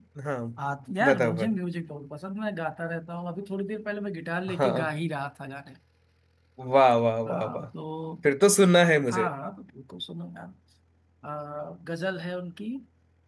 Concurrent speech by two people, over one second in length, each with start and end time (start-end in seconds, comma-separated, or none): none